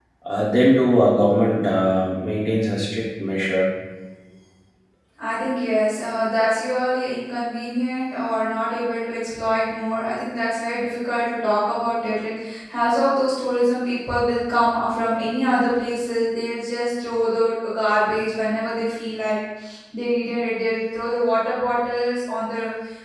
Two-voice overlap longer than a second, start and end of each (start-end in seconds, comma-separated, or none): none